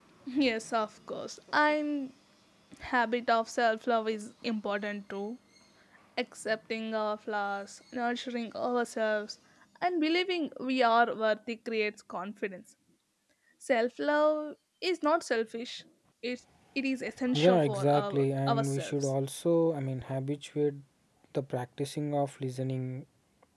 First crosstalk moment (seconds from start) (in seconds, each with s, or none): 17.3 s